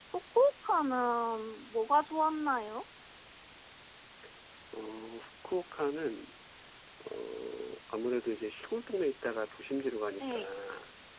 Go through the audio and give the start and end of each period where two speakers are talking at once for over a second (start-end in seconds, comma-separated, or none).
none